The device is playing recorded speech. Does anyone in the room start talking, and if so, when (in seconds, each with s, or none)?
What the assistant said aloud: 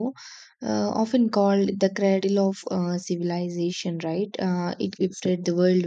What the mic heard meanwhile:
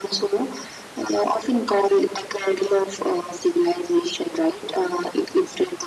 none